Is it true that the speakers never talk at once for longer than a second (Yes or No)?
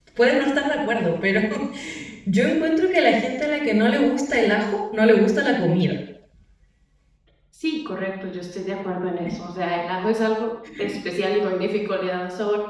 Yes